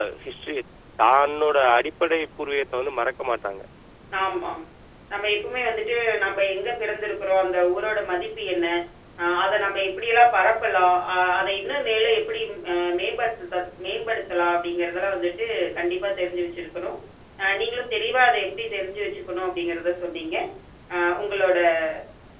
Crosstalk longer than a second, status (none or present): none